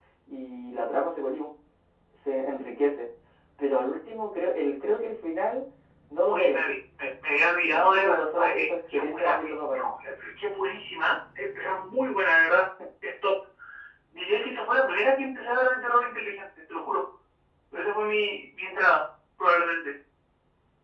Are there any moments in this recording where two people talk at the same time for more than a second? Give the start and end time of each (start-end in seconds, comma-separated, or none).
7.7-9.9